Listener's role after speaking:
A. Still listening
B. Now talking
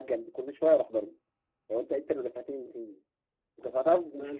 A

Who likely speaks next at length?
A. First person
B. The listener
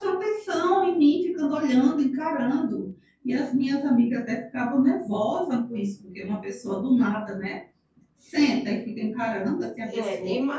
B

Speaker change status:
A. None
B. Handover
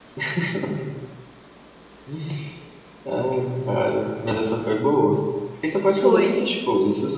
A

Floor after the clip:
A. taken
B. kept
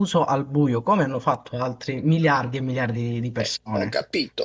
A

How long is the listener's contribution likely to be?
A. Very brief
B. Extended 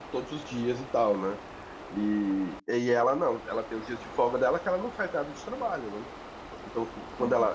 A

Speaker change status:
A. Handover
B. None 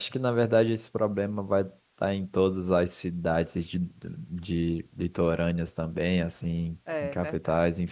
B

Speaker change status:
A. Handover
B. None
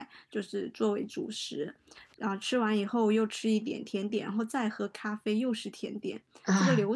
B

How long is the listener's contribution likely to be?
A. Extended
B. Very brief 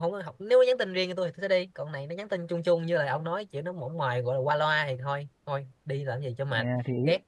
A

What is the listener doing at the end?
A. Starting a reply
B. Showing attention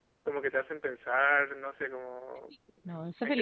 A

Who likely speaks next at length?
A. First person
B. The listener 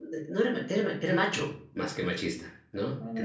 A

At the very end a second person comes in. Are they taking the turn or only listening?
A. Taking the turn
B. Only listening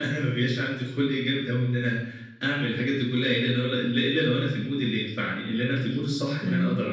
B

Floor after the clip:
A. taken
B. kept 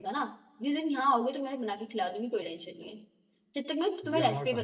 B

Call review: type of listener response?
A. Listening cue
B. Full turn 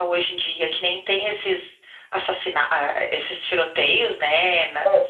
A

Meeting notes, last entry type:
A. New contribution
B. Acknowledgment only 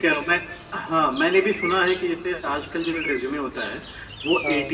B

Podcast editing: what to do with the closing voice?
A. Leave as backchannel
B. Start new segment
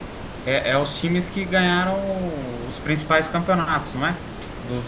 B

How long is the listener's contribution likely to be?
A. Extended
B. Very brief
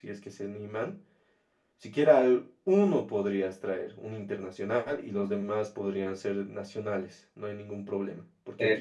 B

